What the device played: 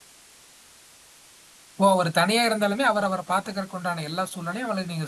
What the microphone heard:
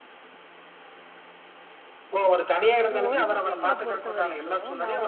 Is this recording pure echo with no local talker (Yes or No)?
No